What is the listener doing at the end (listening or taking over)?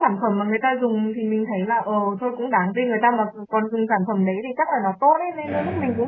listening